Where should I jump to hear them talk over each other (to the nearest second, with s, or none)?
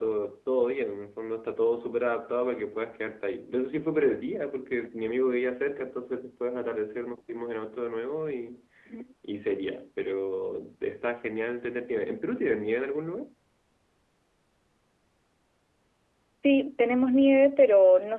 none